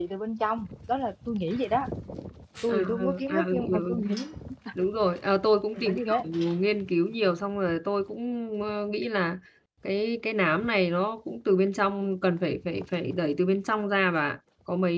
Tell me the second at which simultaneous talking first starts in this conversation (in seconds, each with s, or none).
2.7 s